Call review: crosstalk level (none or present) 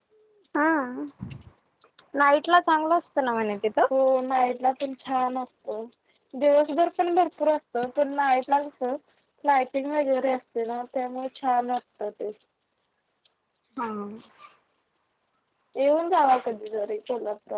none